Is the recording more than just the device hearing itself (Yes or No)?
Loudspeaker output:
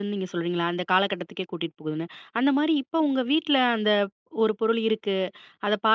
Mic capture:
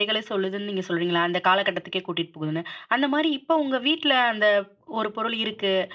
No